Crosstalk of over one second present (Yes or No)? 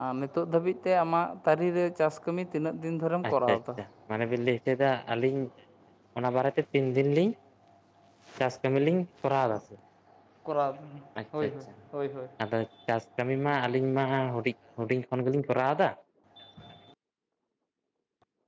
No